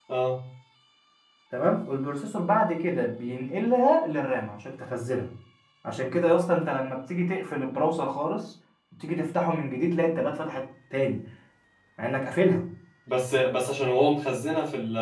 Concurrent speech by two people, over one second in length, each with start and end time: none

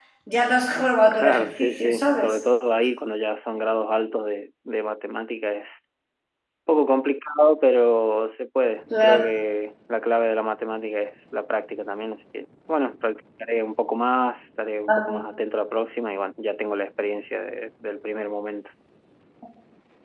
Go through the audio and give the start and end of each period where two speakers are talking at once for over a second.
1.1-2.4

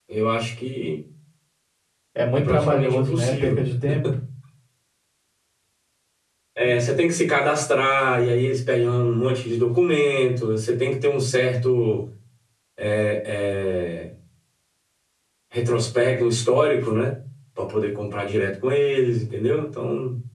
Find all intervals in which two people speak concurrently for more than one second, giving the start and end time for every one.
2.3-3.6

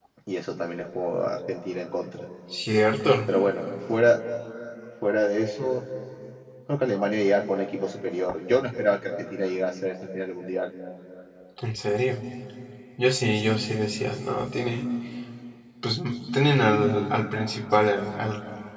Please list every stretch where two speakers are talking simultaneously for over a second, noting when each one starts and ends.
none

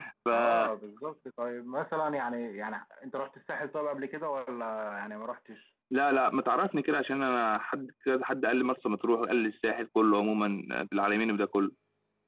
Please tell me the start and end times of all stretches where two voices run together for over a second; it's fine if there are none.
none

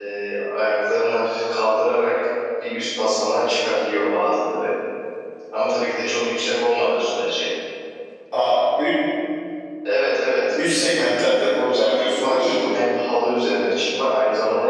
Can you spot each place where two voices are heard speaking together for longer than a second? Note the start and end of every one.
10.6-12.6

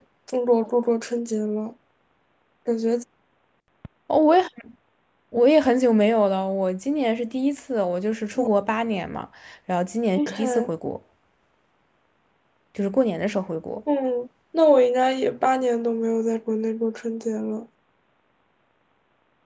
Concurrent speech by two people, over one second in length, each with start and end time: none

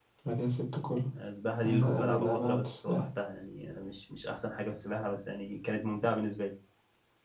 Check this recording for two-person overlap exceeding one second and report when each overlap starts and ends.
1.6-3.0

